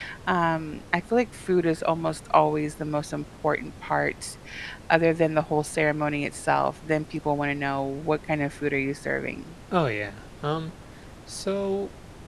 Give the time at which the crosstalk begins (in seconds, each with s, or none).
none